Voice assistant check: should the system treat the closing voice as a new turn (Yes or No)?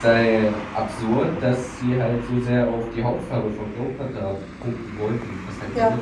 Yes